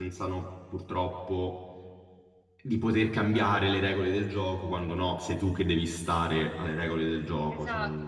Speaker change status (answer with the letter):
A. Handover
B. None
A